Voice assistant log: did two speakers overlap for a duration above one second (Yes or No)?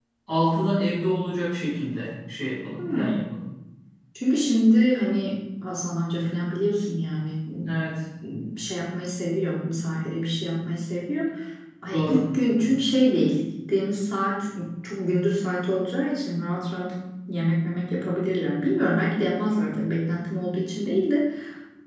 No